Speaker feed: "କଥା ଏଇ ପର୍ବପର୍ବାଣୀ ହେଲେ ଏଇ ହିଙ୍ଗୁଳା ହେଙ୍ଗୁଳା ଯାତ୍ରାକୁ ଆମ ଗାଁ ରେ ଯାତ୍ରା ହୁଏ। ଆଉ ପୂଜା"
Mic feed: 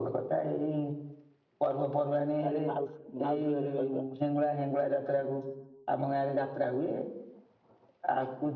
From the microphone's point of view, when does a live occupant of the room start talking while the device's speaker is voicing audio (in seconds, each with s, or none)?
2.4 s